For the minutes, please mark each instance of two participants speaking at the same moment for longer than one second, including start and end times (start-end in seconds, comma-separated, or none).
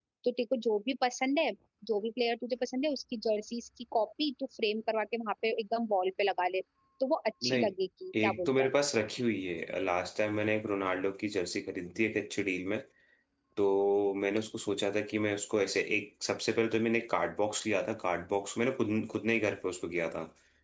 none